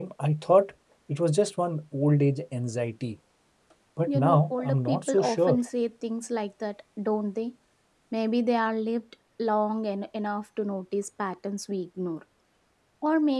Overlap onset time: 4.1 s

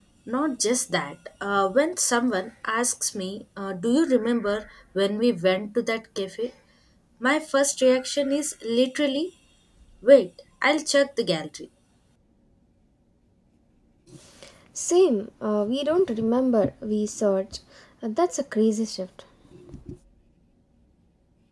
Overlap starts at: none

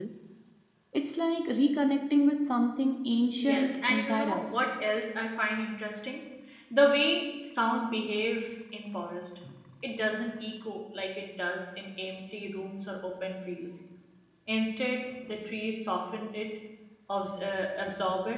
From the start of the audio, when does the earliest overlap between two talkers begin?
3.4 s

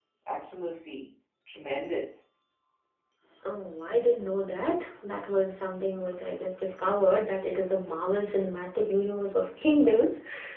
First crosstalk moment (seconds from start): none

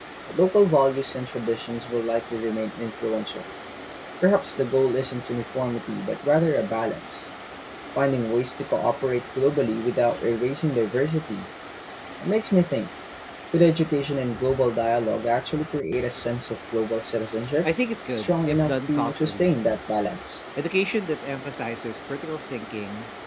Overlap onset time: 18.1 s

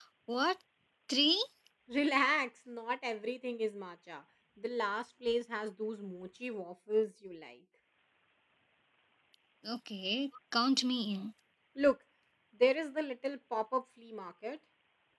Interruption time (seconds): none

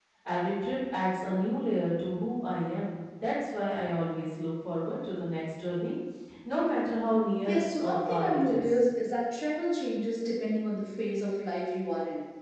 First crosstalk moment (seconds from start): 7.5 s

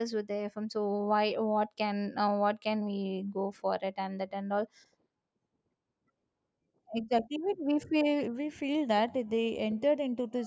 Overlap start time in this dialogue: none

